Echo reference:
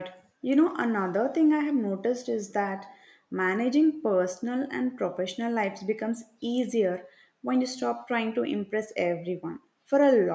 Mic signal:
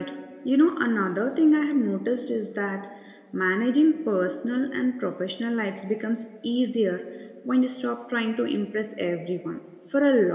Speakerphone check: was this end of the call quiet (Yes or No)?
Yes